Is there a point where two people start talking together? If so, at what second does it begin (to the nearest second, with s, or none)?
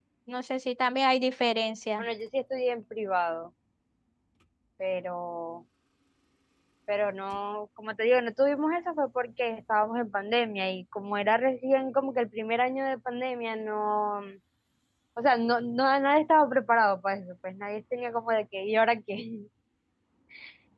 none